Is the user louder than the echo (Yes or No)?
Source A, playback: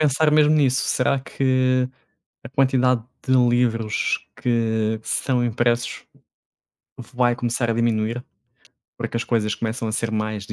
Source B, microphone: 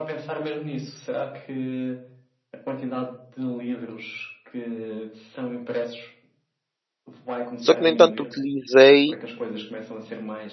Yes